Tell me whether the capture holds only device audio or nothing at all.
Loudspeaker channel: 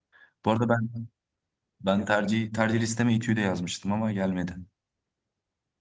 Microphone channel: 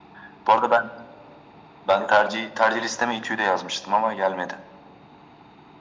Yes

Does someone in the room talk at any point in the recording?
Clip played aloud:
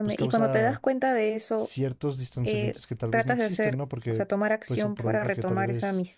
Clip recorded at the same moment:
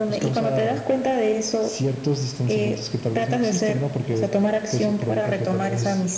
No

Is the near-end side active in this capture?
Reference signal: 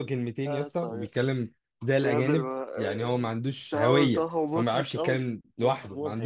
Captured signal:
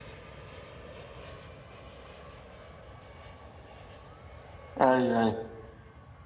Yes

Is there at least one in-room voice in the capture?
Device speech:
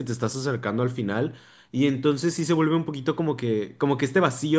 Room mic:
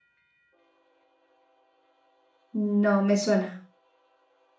Yes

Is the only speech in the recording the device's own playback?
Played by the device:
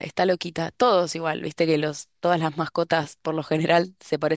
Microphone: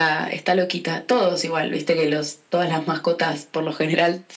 Yes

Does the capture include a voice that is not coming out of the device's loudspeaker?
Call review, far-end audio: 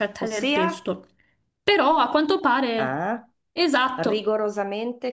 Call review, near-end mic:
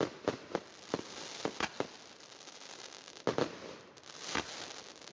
No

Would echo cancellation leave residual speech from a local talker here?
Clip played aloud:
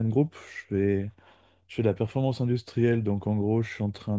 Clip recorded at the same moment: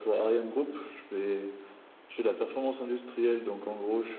No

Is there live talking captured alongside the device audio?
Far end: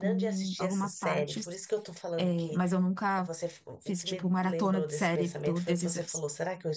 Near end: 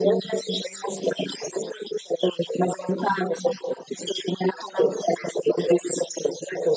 No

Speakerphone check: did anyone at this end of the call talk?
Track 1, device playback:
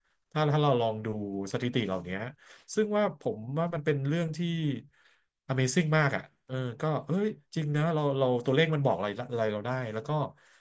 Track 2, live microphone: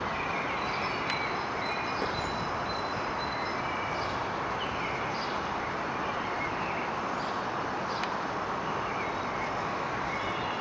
No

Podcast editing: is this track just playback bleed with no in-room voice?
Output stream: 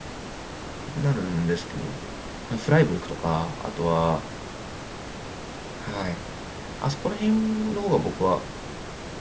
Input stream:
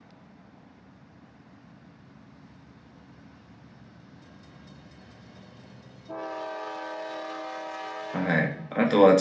No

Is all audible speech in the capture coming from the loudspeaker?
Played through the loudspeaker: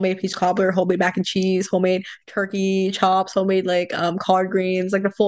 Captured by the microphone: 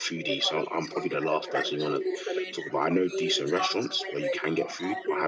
No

